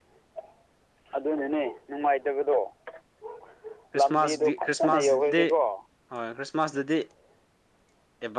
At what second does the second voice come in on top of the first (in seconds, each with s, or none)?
4.0 s